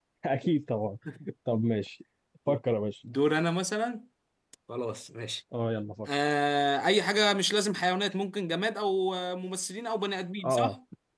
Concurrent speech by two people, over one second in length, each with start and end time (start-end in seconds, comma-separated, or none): none